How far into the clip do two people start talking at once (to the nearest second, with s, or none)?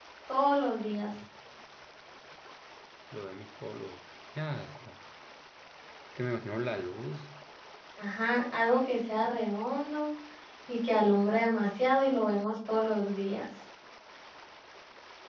none